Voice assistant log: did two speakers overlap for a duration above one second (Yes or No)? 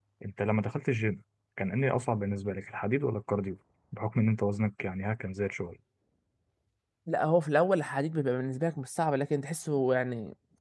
No